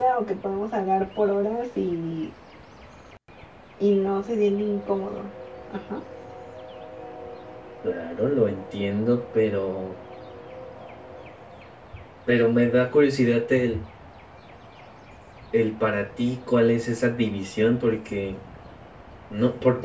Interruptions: none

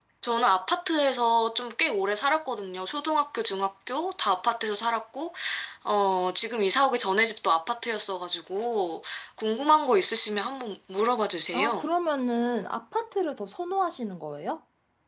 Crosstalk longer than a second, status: none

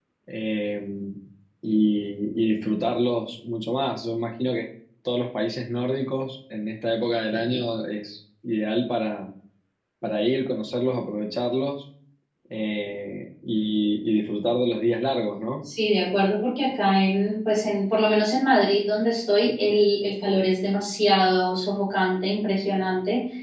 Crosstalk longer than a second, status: none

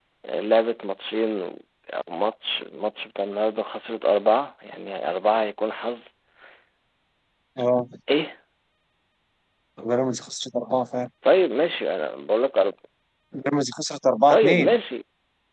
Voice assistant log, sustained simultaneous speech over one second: none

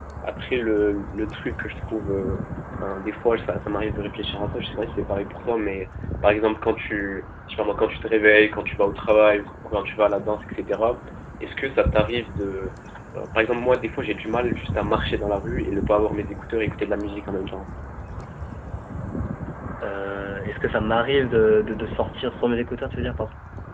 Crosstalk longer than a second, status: none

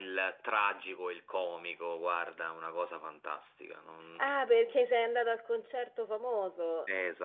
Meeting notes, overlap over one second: none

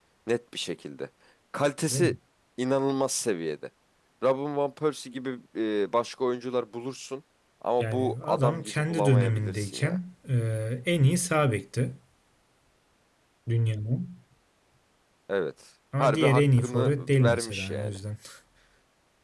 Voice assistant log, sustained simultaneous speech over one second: present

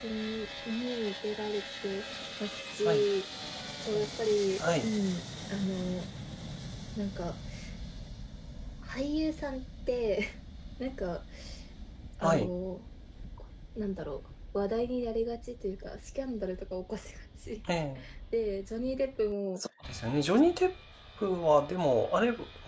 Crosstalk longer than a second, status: none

